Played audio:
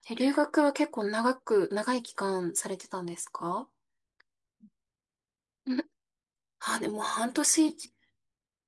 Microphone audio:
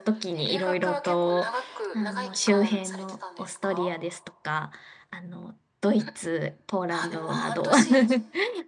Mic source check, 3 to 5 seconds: both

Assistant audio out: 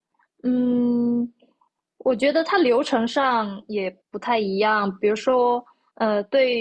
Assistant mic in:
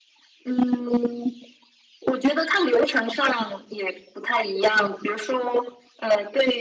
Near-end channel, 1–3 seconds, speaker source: echo only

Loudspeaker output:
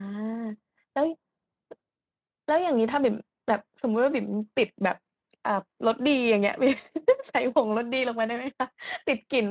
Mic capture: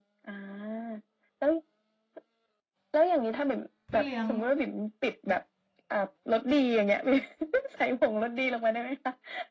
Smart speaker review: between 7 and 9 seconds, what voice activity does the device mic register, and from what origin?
echo only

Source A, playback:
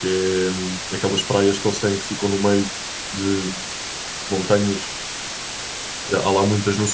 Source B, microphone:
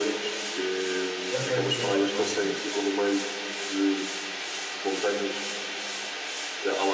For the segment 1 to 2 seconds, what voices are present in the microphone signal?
both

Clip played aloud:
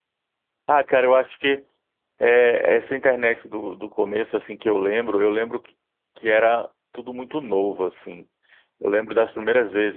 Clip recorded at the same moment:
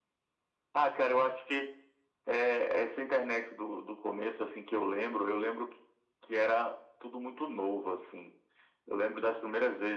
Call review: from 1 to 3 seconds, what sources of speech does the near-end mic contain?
echo only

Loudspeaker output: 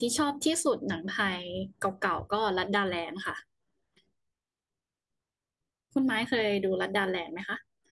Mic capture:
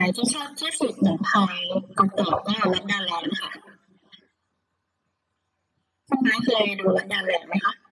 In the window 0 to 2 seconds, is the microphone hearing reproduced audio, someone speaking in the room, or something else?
echo only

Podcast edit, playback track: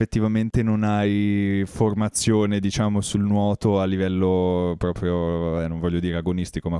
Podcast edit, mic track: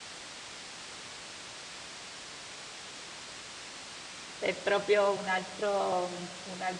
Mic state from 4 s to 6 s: user only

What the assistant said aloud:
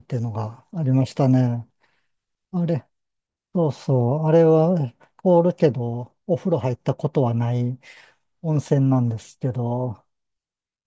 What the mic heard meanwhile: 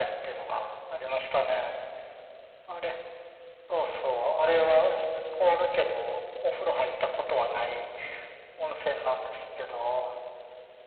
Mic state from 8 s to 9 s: echo only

